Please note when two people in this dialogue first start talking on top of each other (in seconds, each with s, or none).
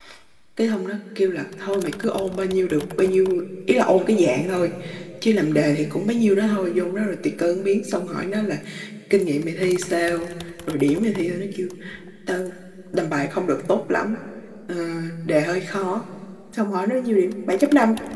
none